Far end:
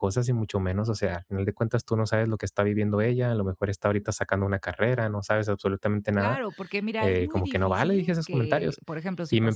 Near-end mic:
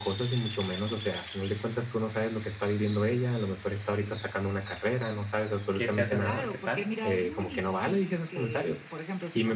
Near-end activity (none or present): present